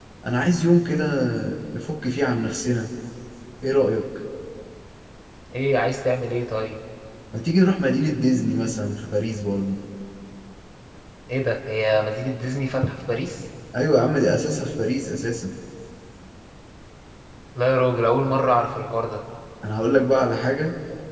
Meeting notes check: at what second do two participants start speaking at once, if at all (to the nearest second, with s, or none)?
none